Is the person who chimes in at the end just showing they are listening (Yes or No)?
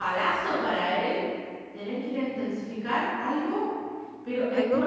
No